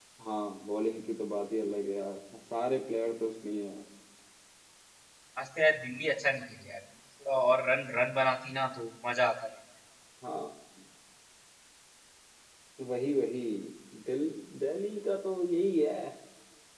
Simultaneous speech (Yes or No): No